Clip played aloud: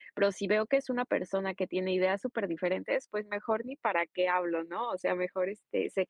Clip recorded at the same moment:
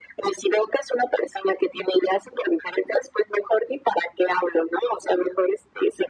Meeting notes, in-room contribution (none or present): none